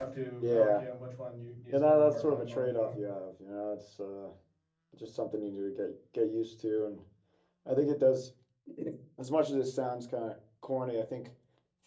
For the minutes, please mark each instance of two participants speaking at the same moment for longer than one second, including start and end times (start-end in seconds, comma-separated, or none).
1.7-3.0